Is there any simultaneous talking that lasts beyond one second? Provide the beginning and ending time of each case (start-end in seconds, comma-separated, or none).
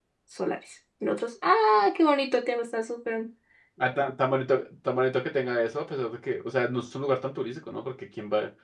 none